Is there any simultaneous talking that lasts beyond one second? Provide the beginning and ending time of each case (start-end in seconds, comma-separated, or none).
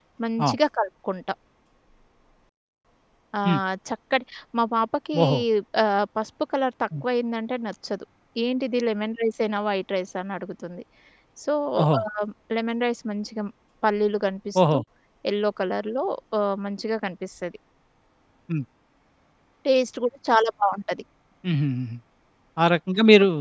none